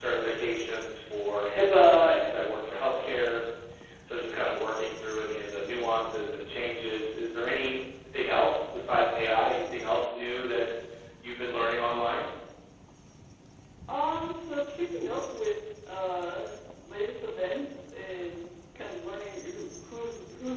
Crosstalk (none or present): none